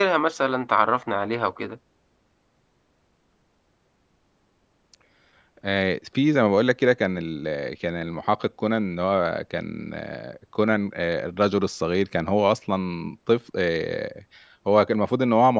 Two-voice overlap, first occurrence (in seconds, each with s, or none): none